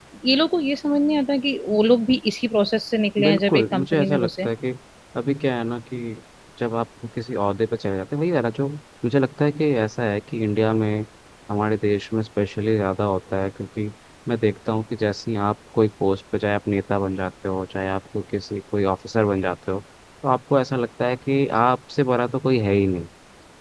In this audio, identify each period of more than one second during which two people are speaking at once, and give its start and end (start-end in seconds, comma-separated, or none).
3.2-4.5